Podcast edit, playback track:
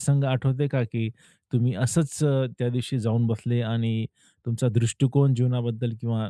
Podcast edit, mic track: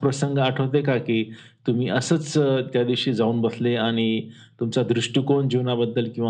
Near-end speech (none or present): none